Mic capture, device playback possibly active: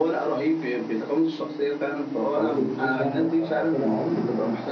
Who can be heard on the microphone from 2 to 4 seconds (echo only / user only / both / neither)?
both